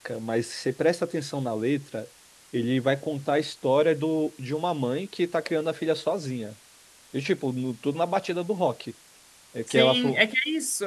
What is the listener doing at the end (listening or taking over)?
taking over